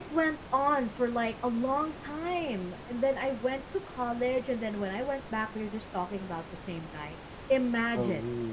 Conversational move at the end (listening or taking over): listening